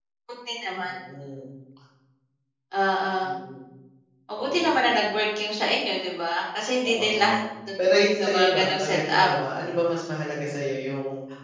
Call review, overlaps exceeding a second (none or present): present